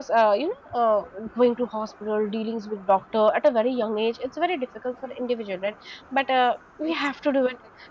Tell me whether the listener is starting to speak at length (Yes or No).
No